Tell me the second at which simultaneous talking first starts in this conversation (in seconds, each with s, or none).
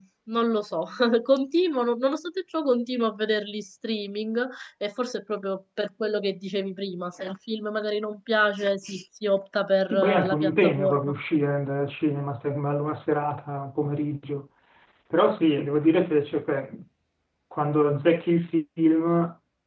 9.8 s